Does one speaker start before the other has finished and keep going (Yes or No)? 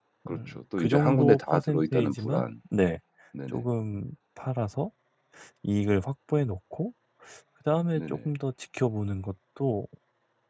Yes